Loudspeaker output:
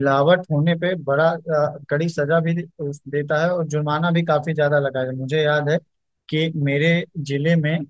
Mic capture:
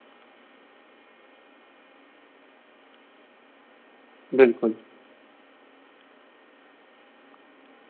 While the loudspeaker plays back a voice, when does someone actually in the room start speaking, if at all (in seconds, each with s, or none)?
4.4 s